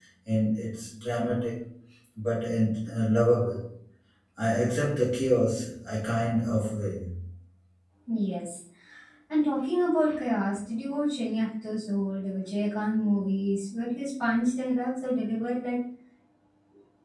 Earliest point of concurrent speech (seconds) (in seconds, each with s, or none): none